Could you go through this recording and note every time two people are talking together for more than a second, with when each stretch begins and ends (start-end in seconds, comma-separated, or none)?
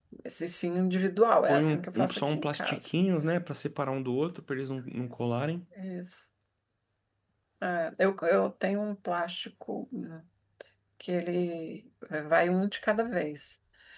1.5-2.8